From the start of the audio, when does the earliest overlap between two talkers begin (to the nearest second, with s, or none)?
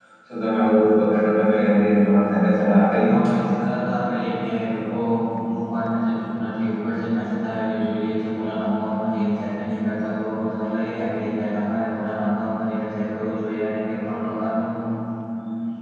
none